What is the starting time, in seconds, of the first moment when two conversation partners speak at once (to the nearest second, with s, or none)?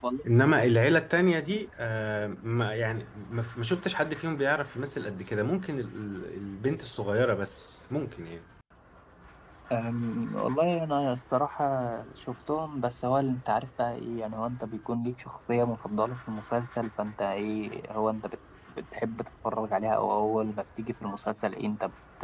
none